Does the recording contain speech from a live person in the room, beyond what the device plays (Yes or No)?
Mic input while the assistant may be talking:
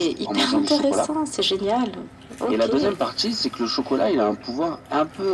No